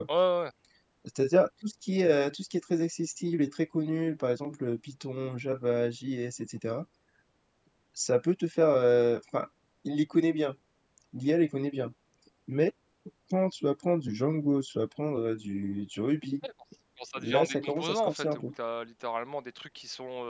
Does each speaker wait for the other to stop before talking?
No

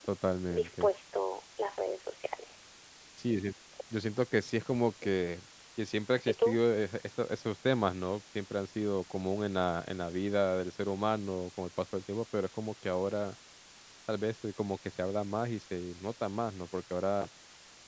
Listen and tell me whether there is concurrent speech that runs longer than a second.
No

